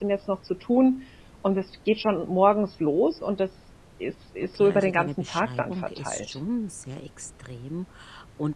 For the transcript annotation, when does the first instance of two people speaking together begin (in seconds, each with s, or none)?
4.5 s